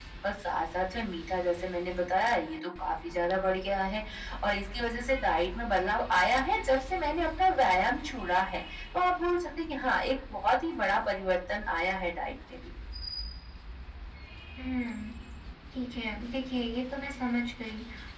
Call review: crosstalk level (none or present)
none